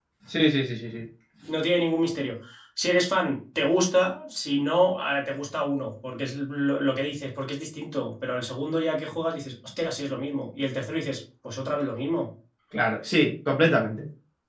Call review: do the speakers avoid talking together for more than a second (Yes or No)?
Yes